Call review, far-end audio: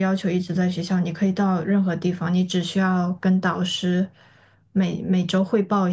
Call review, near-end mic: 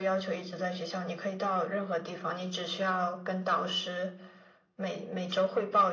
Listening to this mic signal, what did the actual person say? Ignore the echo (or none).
none